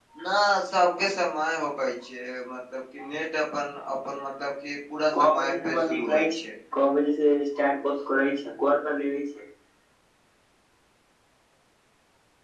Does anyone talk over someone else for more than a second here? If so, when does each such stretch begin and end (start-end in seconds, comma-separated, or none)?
5.2-6.4